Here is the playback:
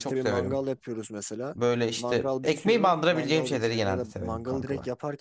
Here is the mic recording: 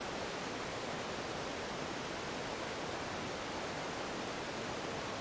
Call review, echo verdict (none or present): none